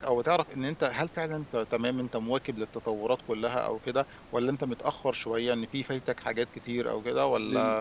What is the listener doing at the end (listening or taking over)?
taking over